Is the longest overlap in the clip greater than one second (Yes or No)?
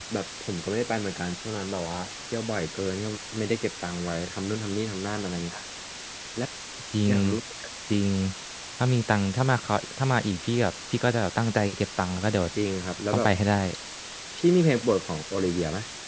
No